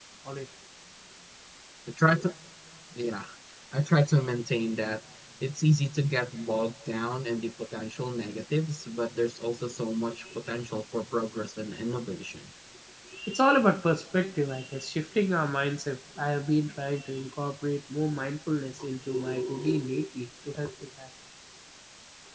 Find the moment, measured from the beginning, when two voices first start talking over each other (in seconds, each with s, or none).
none